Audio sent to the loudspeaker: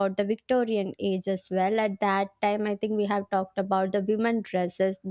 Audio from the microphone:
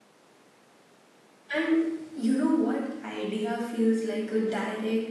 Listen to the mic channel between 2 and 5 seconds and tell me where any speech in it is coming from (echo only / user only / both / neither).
user only